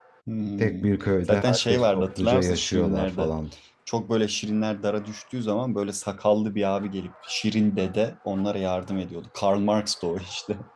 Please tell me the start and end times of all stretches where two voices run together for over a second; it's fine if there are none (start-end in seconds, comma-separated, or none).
1.3-3.3